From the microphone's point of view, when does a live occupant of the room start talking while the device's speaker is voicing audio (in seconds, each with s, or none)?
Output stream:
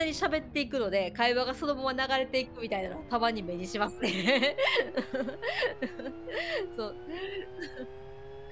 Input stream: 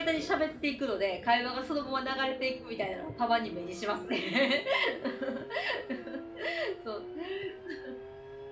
none